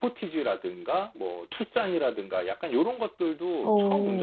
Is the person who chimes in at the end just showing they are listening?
Yes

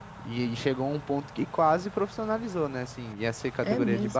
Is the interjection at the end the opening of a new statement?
No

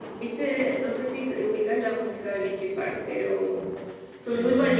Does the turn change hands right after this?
Yes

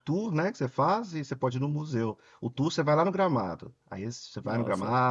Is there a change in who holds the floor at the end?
No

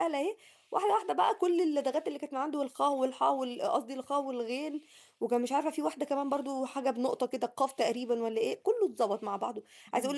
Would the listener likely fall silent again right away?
Yes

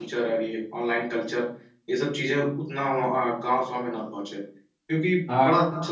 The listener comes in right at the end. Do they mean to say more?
No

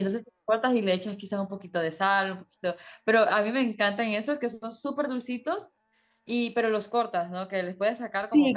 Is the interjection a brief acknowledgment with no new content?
No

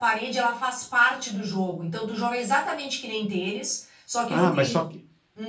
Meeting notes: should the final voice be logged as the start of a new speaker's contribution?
Yes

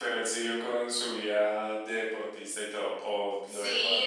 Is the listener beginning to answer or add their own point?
Yes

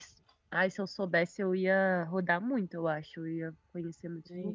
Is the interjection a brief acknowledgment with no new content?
No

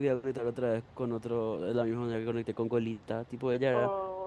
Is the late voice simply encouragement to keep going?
Yes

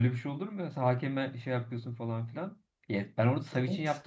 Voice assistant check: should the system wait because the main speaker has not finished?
Yes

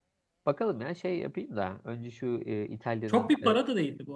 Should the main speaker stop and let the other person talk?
Yes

